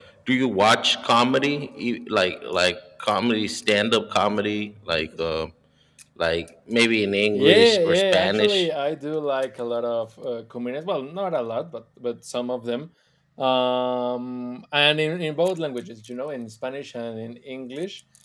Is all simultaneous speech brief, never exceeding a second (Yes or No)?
No